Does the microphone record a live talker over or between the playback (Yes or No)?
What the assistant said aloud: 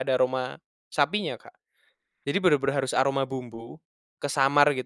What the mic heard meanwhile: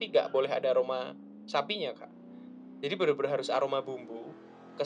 No